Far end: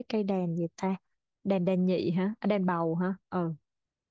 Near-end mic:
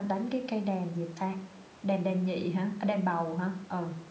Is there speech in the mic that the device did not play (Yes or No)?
No